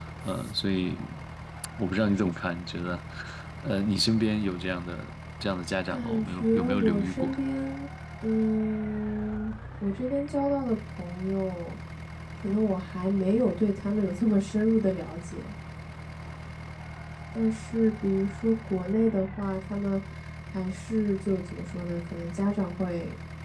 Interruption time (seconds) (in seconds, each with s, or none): 5.9 s